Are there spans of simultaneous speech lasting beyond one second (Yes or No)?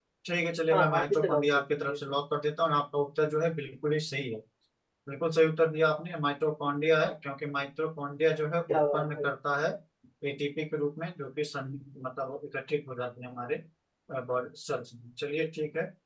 Yes